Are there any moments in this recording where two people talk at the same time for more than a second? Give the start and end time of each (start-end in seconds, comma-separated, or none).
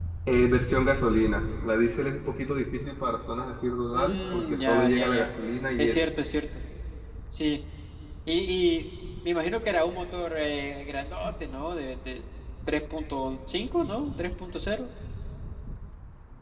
3.9-5.3